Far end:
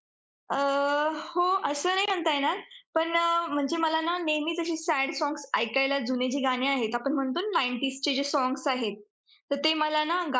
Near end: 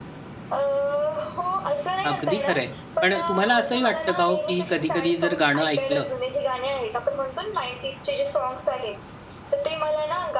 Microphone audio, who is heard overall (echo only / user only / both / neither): both